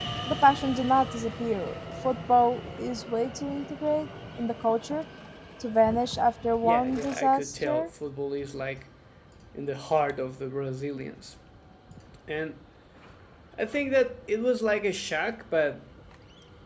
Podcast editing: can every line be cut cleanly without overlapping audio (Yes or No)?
No